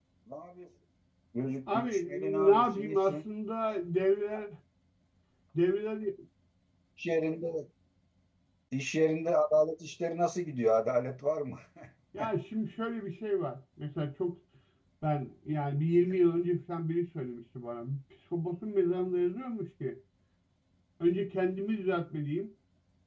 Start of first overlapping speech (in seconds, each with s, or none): 1.7 s